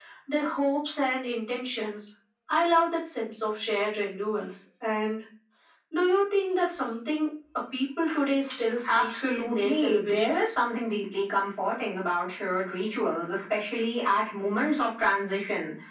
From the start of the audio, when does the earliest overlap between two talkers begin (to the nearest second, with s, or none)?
9 s